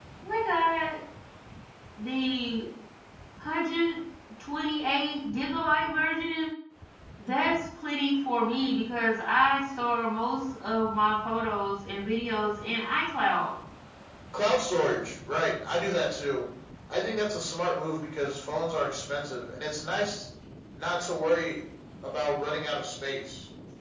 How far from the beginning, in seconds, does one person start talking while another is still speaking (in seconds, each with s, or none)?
none